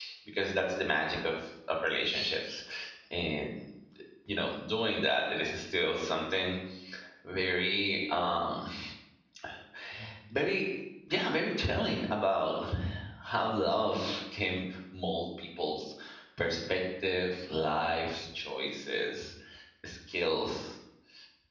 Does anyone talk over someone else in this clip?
No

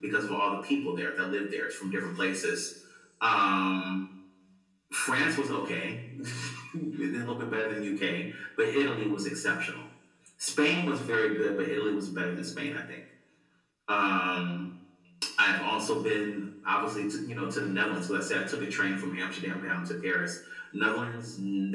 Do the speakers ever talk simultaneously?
No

